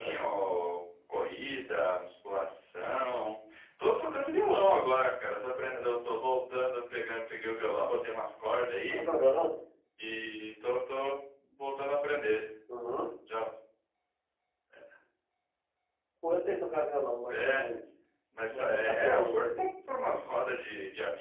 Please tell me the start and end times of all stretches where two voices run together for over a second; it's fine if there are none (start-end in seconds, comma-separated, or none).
18.4-19.6